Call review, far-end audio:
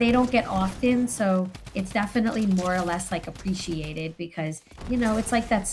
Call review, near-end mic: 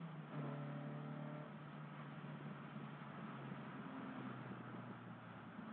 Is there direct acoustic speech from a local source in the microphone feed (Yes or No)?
No